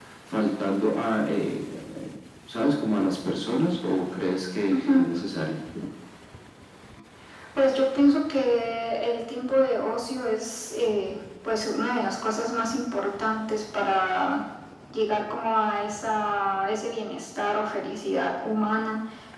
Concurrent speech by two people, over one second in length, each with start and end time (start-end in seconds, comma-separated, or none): none